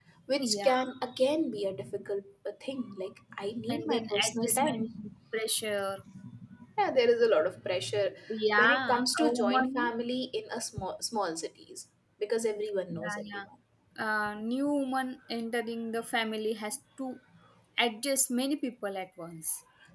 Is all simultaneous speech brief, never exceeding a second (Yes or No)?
No